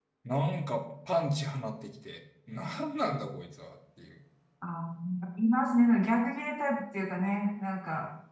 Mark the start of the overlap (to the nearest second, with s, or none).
none